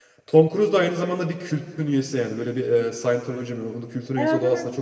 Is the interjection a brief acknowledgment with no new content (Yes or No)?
No